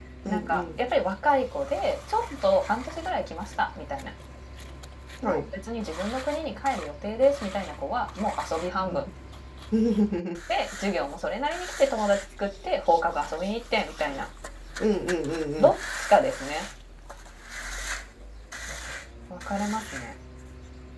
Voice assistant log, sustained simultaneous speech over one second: none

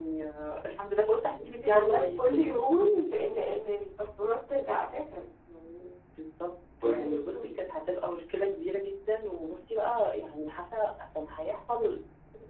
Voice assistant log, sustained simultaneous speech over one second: present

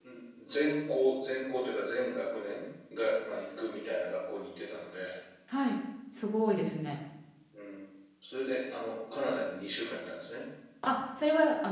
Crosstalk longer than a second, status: none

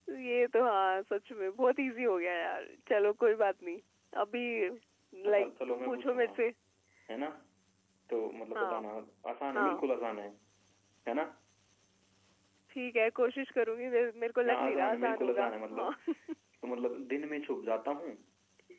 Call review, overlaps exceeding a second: present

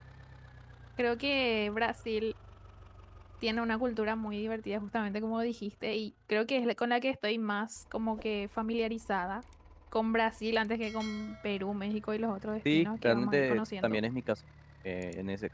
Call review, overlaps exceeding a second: present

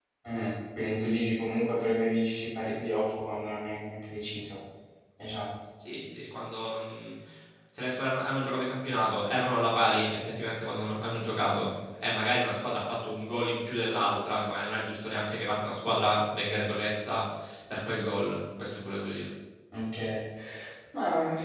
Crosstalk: none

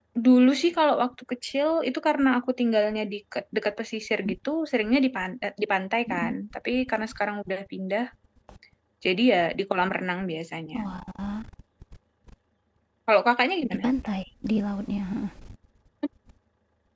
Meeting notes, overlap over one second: none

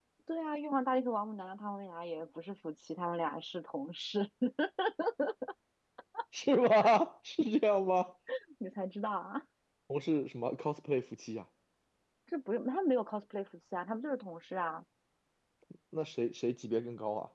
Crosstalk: none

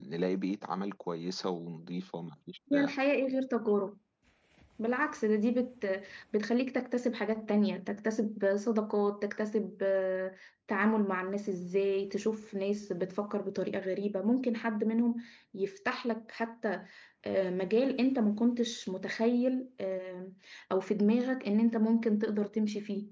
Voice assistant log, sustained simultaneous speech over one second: none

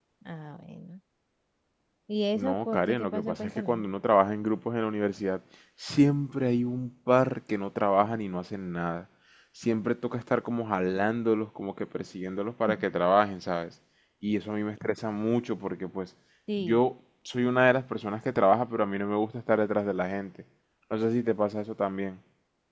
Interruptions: present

